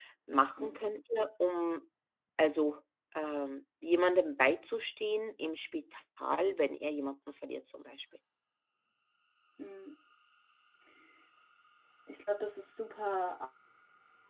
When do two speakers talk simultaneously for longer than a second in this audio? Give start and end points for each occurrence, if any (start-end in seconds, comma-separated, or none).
none